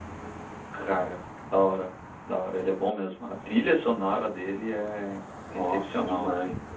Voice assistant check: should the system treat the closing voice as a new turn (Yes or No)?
Yes